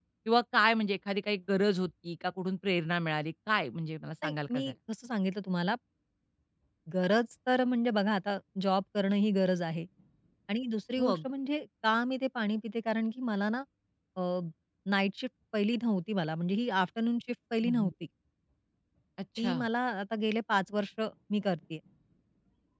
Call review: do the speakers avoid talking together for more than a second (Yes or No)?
Yes